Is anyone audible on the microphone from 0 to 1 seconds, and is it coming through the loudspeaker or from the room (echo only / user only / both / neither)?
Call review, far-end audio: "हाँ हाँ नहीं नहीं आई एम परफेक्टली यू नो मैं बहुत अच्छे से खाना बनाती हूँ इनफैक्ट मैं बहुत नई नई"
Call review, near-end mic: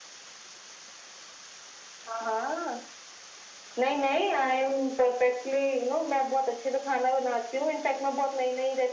neither